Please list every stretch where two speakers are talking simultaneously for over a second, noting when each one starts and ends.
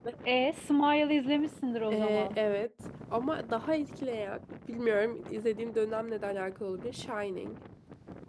none

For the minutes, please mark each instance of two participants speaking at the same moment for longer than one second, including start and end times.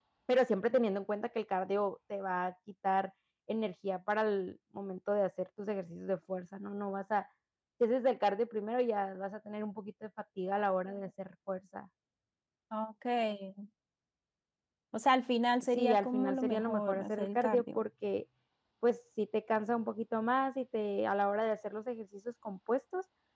15.6-17.8

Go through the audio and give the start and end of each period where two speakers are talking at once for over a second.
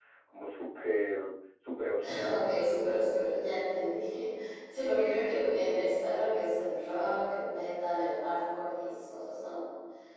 none

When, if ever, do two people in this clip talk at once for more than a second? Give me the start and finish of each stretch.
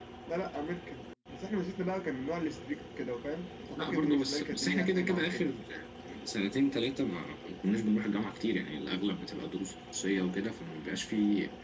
3.8-5.5

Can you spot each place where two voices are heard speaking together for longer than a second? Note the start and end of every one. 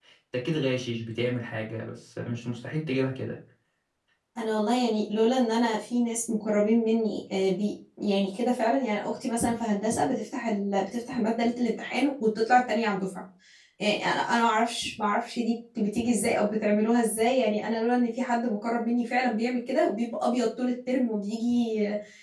none

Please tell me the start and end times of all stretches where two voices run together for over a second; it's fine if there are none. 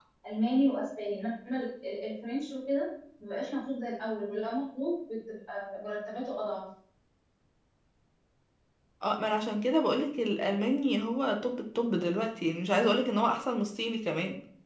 none

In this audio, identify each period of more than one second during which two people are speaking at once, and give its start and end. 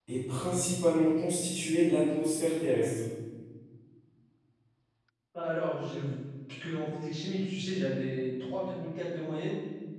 none

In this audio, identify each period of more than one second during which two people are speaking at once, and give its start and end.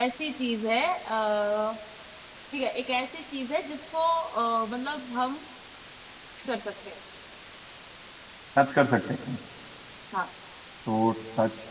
none

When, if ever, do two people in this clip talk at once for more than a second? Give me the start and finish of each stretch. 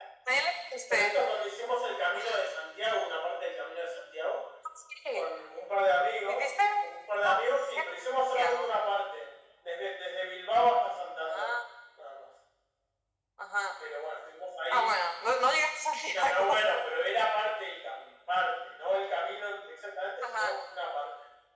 none

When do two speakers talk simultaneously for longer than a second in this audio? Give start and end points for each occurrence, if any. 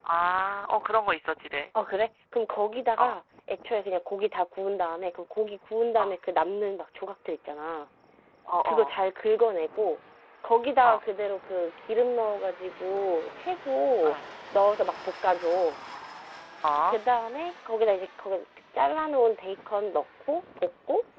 none

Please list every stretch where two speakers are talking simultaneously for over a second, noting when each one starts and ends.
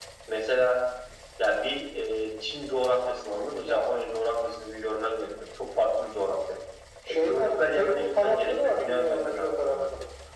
7.1-9.8

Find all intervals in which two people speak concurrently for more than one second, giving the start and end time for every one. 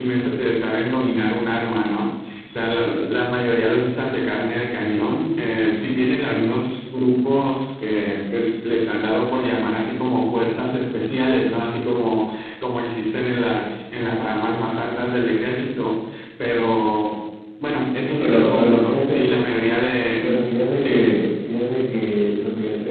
18.0-19.3

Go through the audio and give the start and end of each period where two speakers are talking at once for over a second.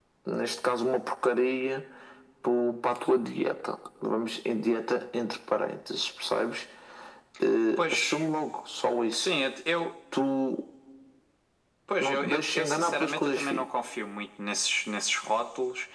12.0-13.6

